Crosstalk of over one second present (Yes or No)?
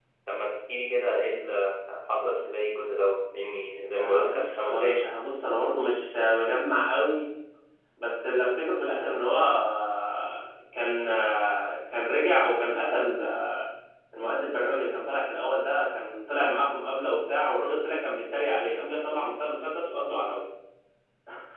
Yes